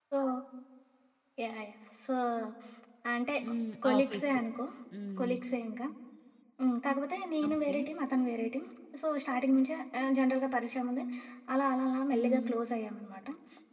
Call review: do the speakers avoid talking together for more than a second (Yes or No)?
Yes